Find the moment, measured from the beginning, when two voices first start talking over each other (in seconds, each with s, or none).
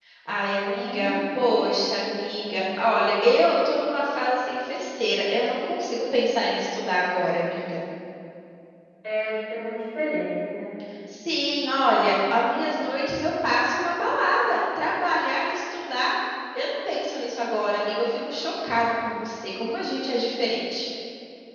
0.6 s